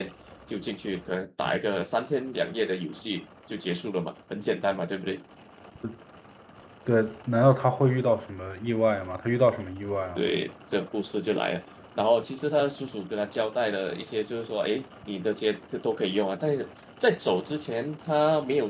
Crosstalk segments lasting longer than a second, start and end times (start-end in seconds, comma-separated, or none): none